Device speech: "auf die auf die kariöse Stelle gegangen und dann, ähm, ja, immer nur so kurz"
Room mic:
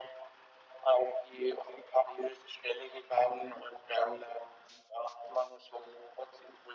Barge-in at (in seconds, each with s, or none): none